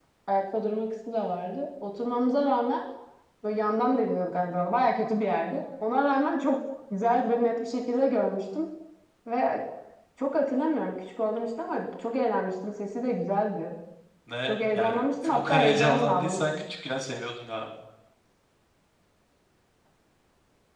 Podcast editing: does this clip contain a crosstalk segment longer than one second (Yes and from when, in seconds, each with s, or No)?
Yes, from 14.5 s